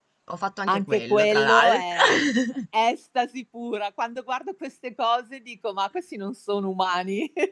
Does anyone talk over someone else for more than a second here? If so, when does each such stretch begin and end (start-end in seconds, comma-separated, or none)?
0.7-2.0